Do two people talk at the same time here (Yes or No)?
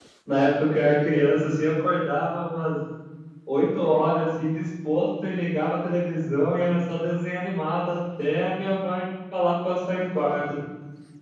No